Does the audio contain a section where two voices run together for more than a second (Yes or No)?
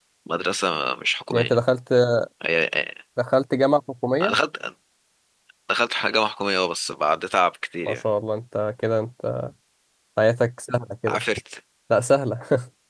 No